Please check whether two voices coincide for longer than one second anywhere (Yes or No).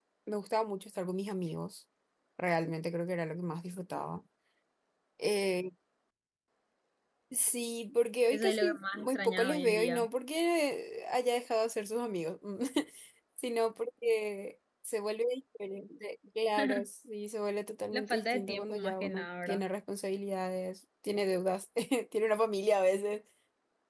Yes